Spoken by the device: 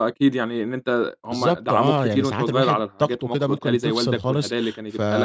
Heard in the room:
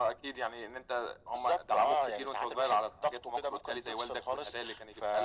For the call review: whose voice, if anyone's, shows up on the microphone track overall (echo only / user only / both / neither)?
echo only